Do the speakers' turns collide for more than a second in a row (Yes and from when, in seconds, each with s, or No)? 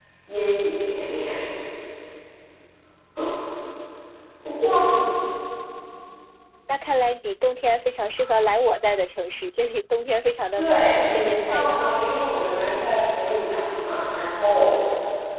Yes, from 10.6 s